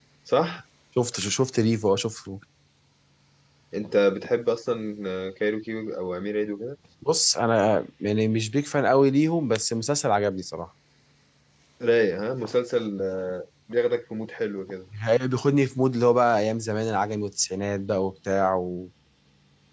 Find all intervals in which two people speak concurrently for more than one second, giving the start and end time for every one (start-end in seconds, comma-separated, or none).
none